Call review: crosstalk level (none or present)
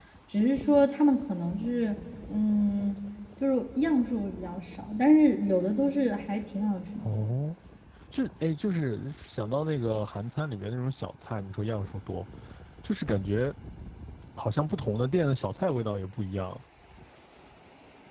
none